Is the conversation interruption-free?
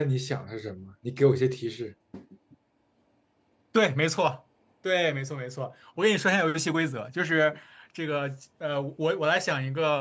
Yes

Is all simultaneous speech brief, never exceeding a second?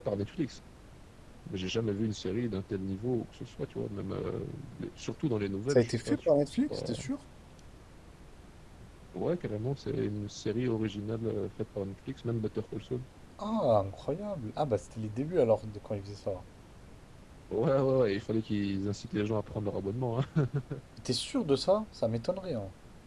No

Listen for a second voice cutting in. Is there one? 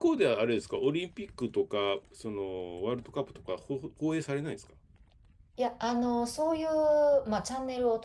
No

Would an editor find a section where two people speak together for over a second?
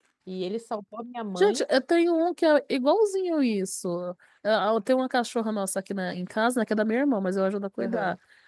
No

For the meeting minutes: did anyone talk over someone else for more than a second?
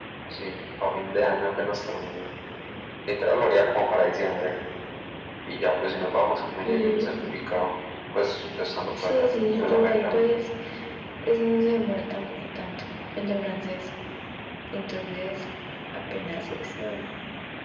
Yes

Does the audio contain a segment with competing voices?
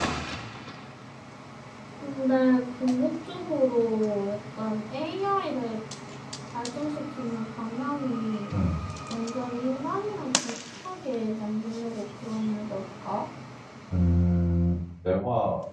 No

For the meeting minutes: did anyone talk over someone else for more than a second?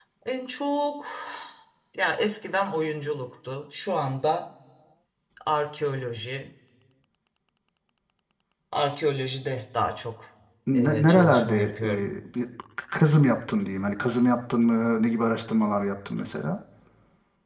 Yes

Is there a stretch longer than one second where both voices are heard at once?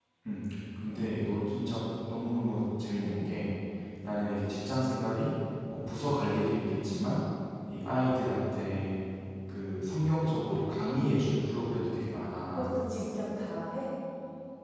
No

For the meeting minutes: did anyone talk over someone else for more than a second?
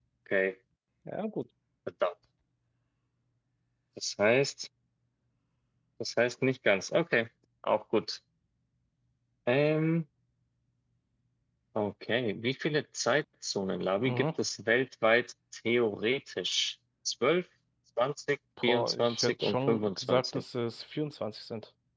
Yes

